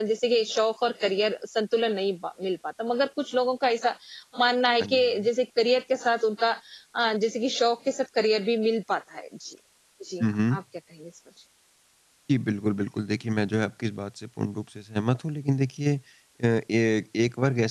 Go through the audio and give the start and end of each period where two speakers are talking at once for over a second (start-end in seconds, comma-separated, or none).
none